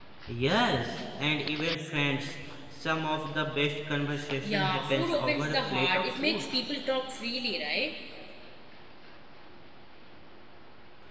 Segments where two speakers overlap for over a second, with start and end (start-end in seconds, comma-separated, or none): 4.4-6.4